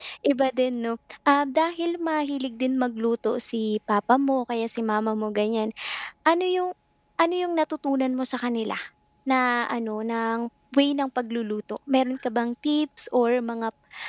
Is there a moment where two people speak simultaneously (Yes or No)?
No